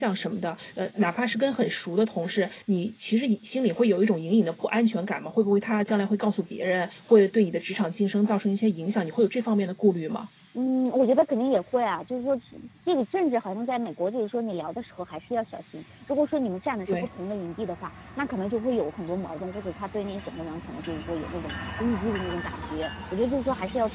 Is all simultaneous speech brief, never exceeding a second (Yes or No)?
Yes